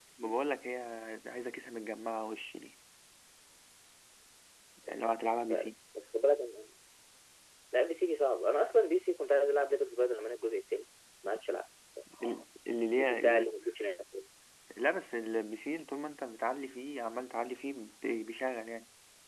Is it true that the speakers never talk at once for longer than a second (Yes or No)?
Yes